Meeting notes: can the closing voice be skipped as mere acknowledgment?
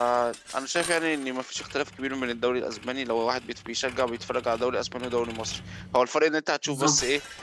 Yes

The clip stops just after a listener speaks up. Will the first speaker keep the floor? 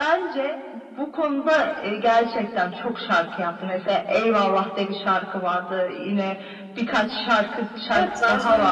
No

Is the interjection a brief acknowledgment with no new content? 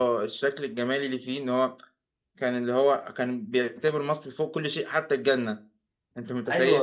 No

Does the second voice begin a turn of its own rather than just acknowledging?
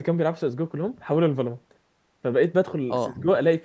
No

